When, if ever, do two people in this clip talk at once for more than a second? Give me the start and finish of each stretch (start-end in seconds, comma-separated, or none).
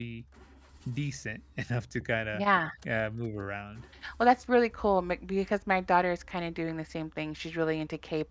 none